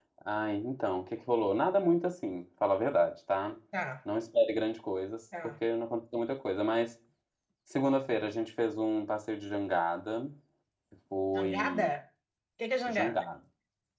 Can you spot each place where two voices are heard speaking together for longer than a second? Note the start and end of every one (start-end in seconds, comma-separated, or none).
none